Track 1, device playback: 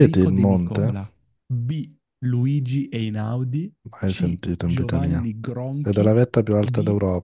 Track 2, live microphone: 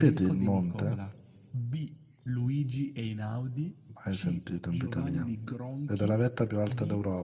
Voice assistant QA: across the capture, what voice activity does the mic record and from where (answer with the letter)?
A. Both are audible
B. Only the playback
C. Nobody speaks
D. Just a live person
B